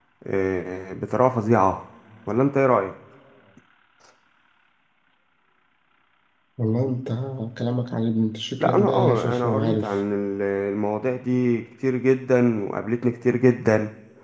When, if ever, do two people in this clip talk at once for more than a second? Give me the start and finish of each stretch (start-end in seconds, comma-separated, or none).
8.6-9.9